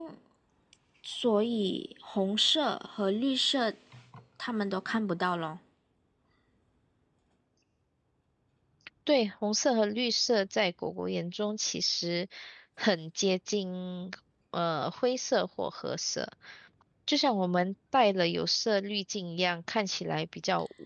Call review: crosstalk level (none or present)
none